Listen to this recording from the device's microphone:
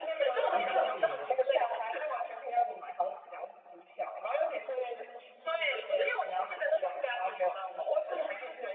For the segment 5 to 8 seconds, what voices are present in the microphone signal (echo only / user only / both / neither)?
echo only